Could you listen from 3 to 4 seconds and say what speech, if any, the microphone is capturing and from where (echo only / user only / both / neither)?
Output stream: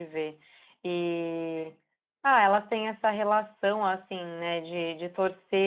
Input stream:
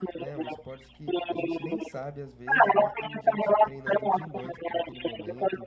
both